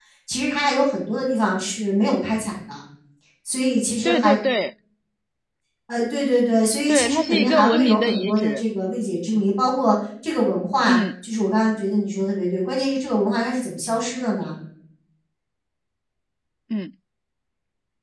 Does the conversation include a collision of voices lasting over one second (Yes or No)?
Yes